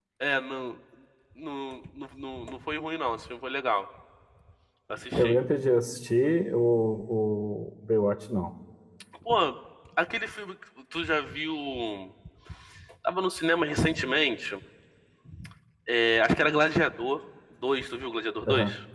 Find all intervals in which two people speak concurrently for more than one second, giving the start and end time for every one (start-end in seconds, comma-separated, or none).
none